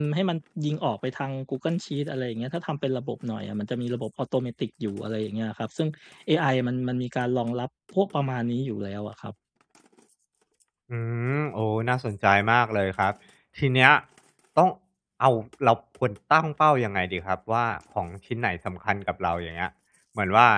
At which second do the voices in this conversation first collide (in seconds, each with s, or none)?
none